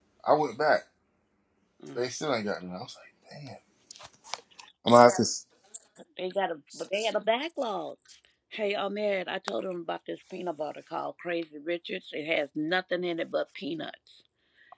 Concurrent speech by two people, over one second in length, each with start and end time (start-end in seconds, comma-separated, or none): none